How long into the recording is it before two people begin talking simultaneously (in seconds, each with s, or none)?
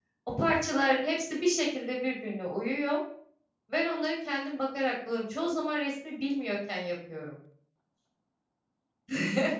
none